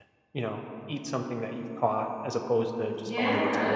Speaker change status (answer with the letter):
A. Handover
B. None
A